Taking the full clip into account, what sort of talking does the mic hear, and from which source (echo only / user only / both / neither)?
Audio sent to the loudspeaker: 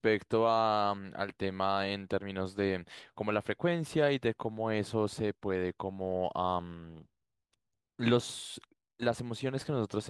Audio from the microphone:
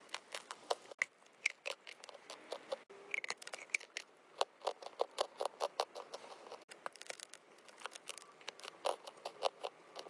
neither